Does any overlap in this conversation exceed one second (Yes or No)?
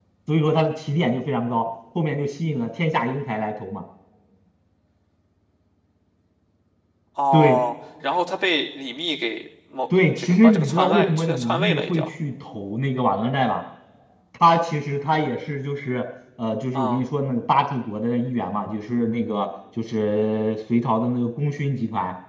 Yes